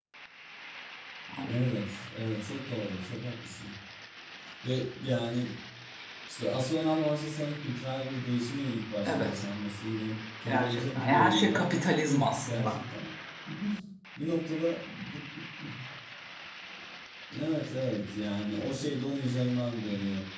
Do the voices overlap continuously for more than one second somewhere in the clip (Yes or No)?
Yes